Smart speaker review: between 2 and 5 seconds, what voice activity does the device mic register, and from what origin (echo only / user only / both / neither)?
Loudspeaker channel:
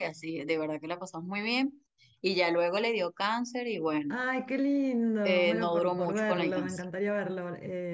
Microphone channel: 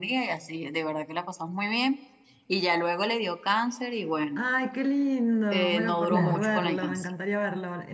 echo only